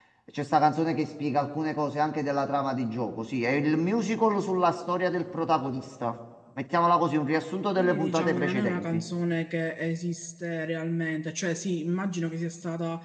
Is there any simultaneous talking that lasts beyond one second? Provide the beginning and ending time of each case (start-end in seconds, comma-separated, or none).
7.7-9.0